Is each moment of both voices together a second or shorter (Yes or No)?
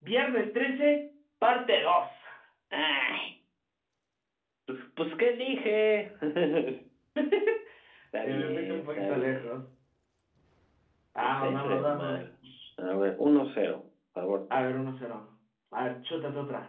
No